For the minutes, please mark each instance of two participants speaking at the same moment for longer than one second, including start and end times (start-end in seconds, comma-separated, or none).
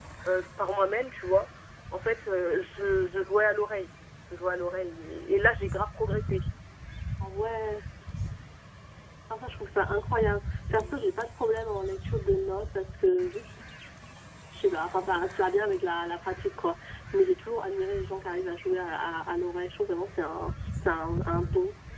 none